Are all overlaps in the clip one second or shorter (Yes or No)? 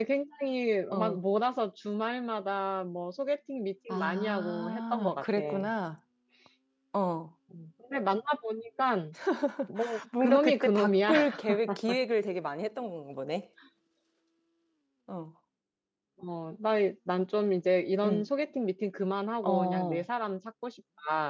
No